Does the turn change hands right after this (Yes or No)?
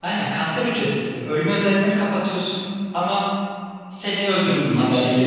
Yes